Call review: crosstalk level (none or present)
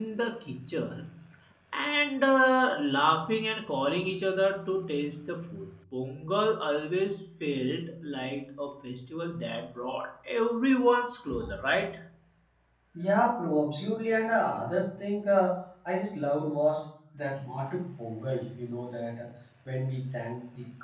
none